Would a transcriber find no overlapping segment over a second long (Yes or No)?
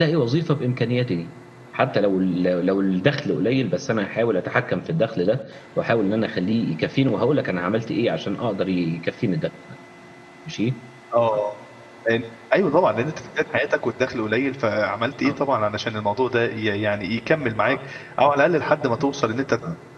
Yes